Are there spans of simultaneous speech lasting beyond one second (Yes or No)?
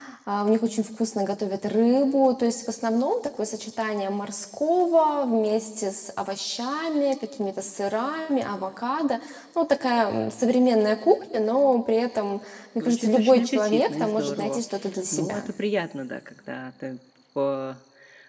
Yes